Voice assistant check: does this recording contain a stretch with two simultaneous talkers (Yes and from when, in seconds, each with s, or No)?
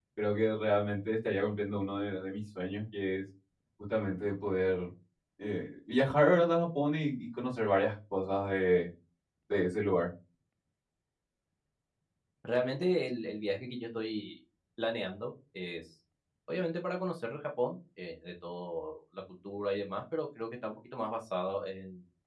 No